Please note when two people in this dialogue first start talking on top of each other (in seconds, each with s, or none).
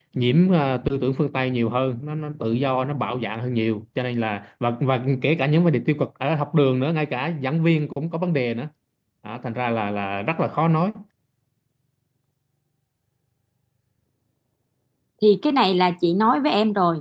none